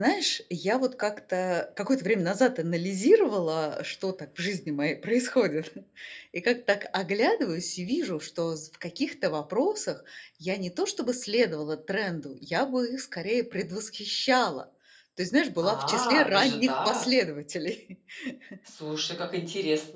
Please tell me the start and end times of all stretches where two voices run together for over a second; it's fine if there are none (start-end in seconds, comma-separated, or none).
15.6-17.0